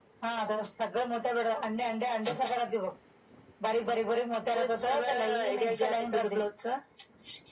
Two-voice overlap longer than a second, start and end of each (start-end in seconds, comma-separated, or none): 4.5-6.4